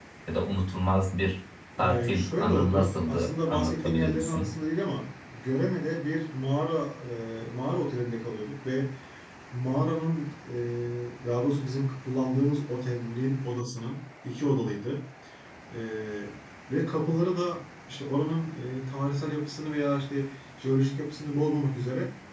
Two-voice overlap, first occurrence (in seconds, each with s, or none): 1.8 s